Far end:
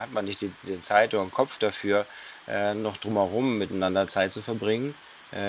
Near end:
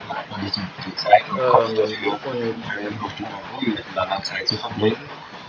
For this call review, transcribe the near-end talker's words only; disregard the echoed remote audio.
Ähm, und

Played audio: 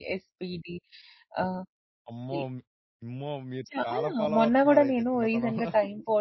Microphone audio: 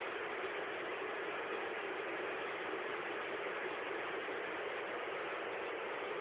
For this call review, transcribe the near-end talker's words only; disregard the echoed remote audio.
none

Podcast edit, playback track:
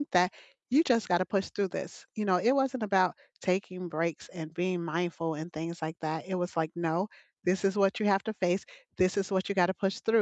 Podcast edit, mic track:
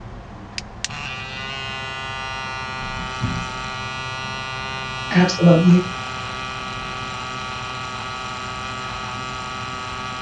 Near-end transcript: Absolutely.

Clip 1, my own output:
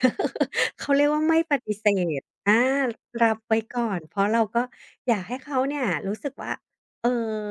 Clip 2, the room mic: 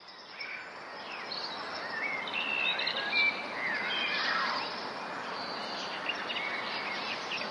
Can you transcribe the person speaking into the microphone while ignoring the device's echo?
none

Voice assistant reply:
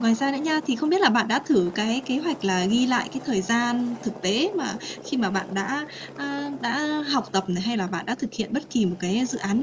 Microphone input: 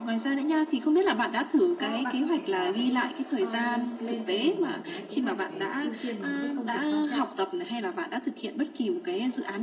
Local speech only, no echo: có bạn có thể là hãy, à, lên cho mình một cái kế hoạch về ưu tiên về những cái công việc quan trọng.

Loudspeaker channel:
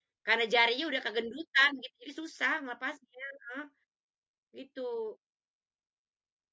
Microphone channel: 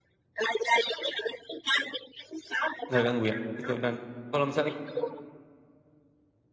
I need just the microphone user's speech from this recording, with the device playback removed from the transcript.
Gak ganggu, ya? Gitu, dan kalo misalnya

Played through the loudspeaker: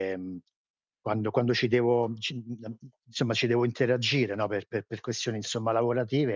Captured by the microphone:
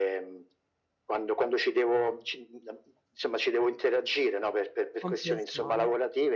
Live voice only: Comprensione.

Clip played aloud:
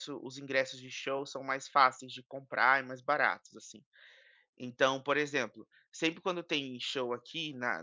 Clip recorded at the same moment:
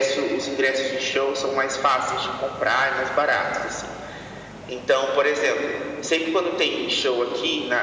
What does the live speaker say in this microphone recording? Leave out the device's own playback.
none

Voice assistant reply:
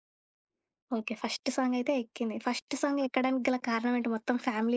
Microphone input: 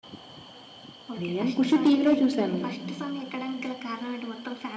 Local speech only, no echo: నేను 'ఖుషి' టీవీలో చూసాను.

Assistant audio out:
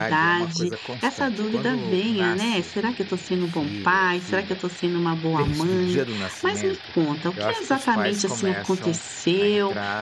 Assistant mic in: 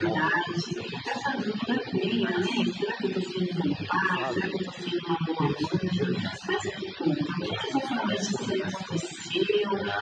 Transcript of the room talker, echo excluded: sabe?

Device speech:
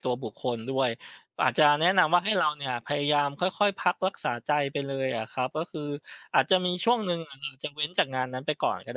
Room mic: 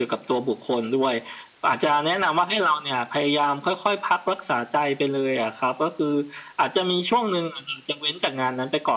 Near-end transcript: none

